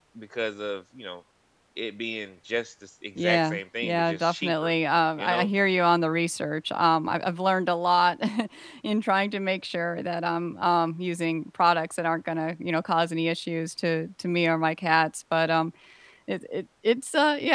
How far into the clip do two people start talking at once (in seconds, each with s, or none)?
3.2 s